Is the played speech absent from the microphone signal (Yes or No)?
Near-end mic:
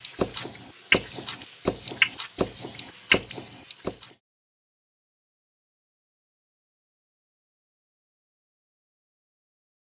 Yes